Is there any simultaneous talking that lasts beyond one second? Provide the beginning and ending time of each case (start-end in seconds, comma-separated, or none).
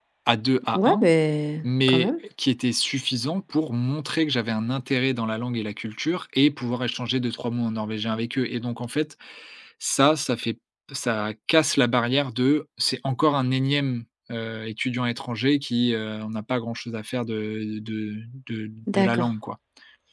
none